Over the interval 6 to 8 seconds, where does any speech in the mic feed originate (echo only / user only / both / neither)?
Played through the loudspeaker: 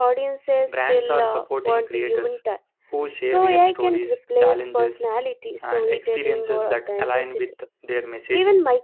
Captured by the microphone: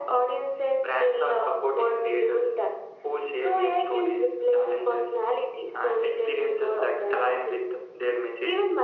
echo only